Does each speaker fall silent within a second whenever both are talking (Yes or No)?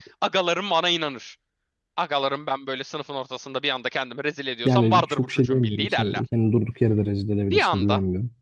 No